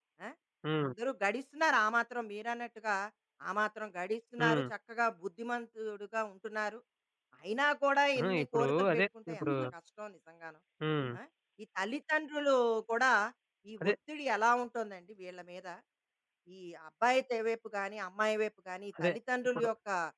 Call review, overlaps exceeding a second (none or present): present